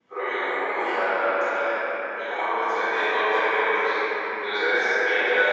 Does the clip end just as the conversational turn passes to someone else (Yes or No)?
No